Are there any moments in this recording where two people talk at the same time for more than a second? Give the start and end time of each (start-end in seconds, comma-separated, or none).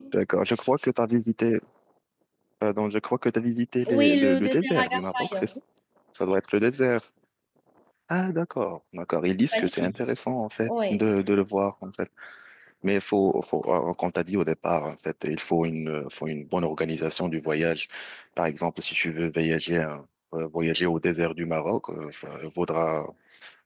3.9-5.4